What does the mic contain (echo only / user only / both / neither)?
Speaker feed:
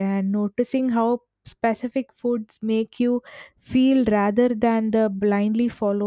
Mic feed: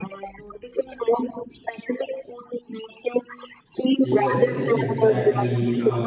both